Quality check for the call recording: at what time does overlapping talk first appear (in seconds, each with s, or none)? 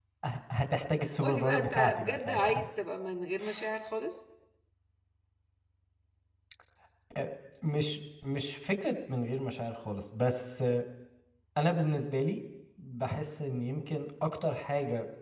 1.2 s